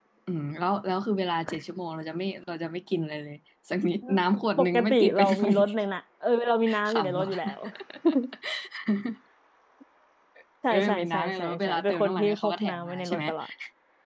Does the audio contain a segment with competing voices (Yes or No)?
Yes